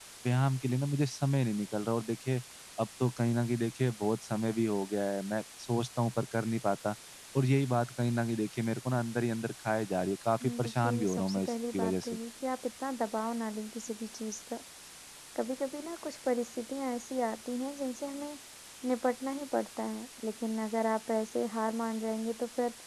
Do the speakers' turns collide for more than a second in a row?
Yes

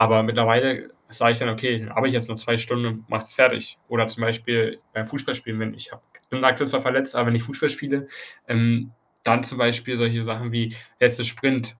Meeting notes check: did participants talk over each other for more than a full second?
No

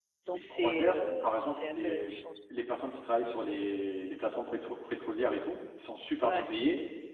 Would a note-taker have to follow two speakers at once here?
Yes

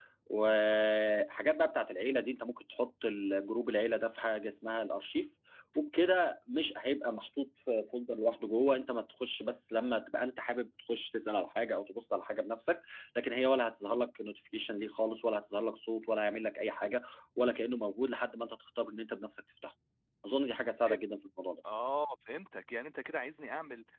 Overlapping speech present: No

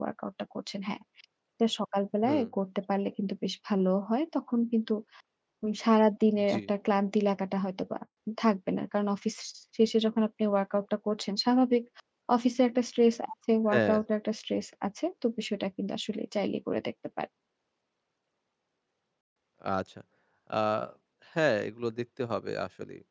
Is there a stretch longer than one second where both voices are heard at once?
No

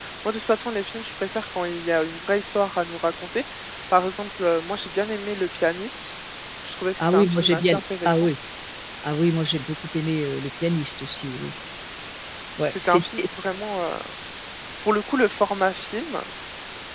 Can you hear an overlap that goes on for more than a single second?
Yes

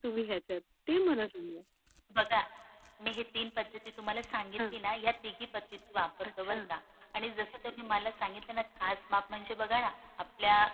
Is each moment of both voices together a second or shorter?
Yes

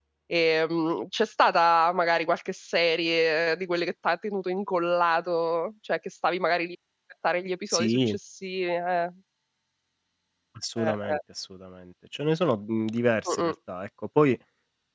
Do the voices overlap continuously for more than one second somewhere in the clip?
No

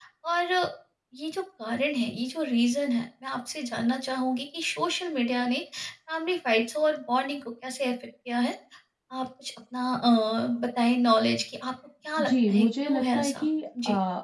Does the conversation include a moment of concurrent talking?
Yes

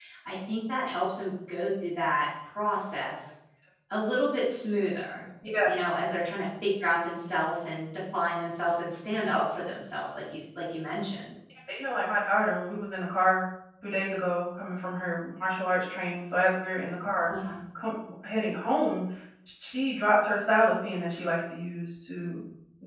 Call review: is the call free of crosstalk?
Yes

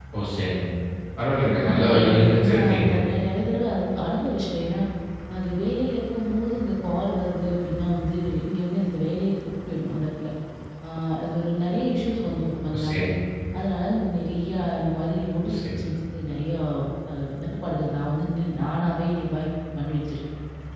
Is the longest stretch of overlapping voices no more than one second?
No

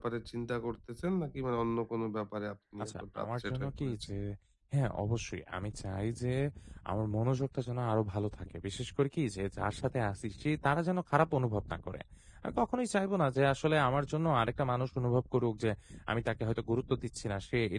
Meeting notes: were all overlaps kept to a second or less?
No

